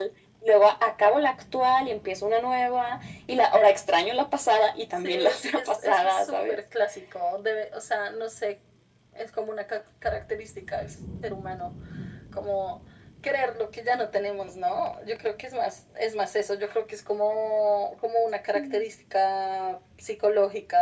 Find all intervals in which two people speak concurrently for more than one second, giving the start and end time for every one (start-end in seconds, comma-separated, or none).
5.0-6.6